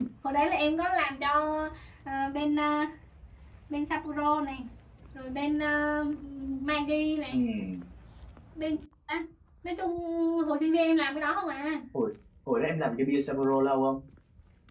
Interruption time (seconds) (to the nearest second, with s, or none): none